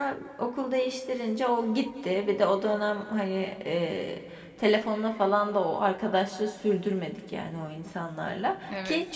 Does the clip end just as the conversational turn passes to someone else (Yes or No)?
No